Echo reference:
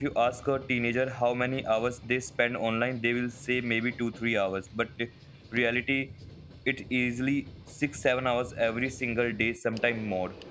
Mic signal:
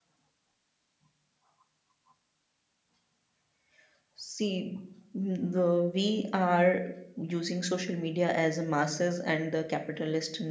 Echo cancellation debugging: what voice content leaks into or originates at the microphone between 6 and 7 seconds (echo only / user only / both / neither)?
user only